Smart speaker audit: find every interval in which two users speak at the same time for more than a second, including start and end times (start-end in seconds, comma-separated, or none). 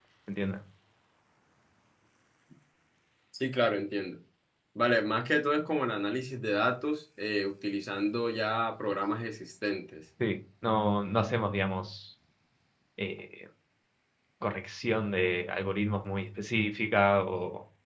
none